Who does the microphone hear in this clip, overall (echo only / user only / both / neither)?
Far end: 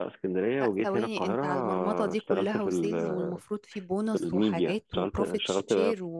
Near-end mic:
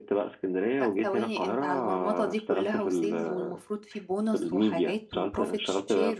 echo only